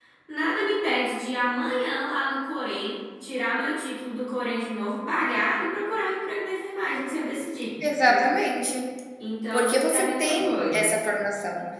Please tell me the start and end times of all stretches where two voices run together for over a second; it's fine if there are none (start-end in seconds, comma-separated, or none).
9.5-10.9